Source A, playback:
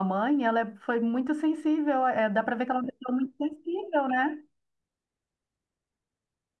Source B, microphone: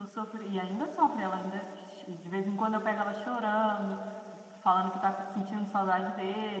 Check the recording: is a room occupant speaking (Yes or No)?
Yes